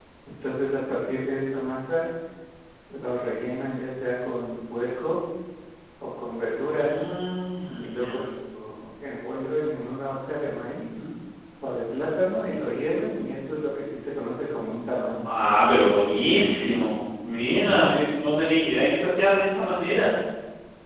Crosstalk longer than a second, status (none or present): none